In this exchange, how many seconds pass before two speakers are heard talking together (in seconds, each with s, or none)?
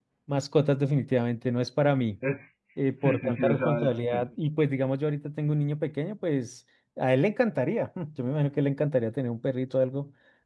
2.8 s